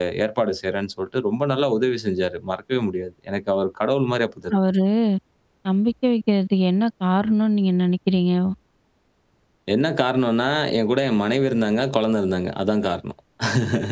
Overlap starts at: none

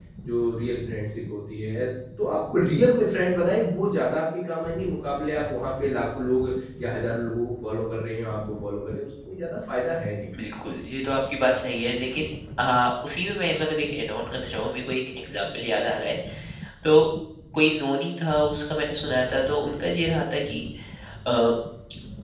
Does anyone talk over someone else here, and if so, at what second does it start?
none

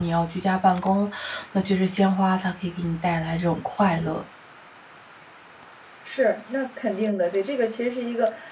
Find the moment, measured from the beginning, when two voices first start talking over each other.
none

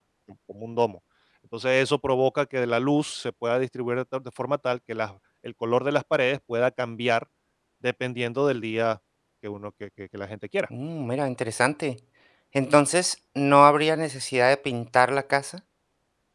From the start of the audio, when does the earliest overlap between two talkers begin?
none

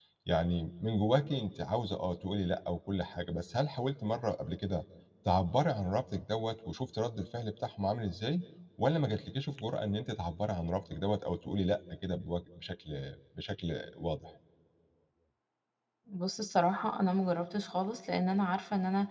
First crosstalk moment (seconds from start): none

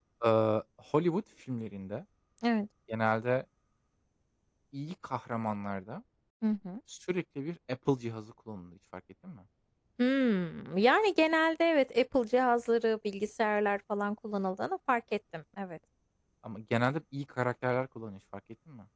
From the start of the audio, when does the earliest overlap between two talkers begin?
none

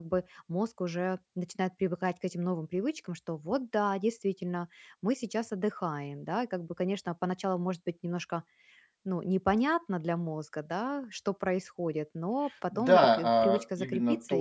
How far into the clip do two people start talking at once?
12.7 s

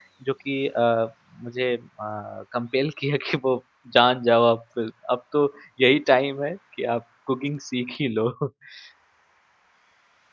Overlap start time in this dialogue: none

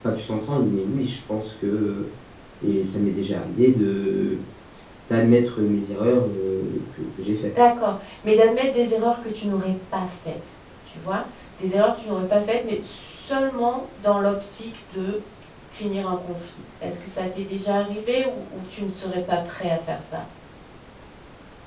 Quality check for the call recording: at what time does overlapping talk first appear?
none

